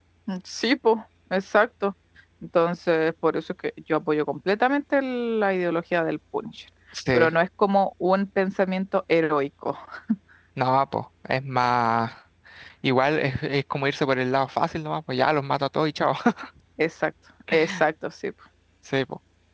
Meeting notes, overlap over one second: none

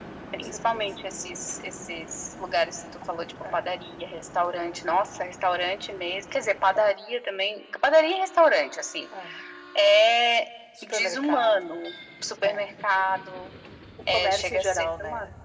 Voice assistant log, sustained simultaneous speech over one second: present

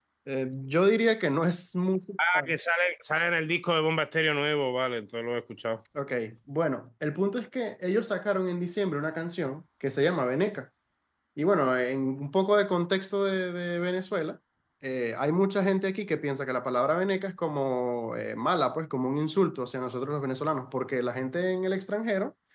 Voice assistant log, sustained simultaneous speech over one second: none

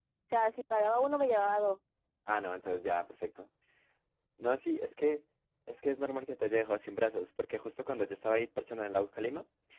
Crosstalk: none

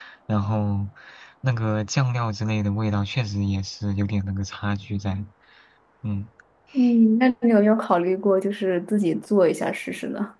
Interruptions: none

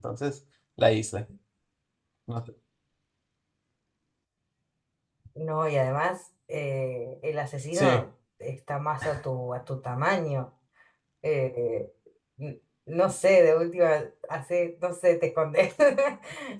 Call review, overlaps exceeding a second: none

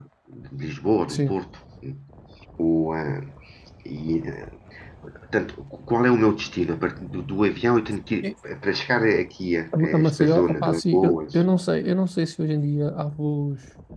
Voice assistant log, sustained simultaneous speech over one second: present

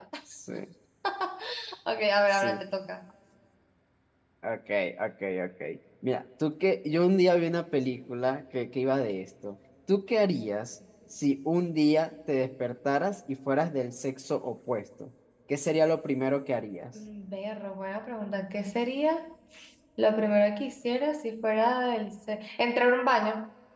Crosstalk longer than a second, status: none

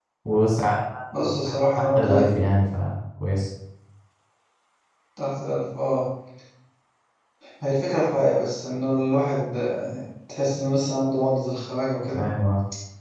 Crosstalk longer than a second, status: present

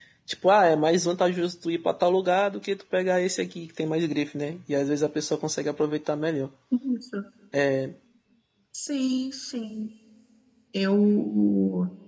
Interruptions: none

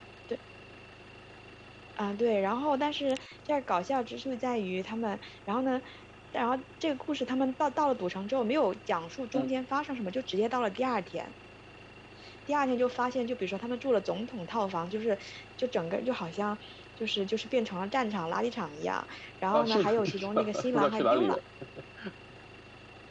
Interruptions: present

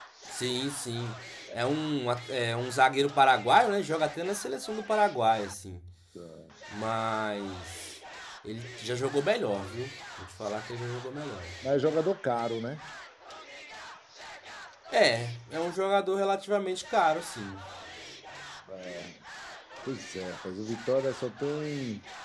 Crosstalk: none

